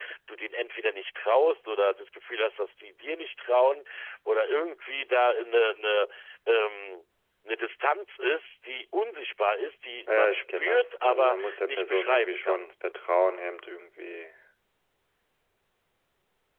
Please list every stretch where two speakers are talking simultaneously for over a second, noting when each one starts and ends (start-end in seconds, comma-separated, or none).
10.1-12.6